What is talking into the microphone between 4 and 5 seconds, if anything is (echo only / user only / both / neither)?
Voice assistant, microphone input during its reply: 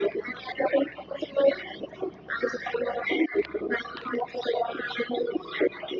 echo only